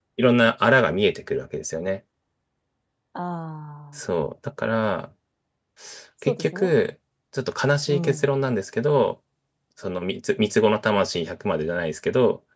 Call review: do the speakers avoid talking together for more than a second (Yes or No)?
Yes